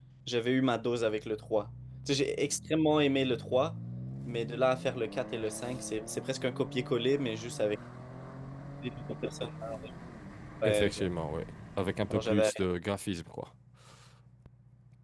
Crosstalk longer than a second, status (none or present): none